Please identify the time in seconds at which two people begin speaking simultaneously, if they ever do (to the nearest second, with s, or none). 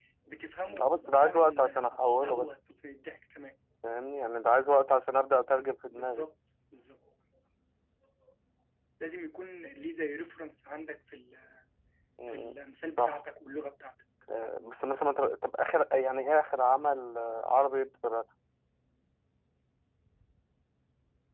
1 s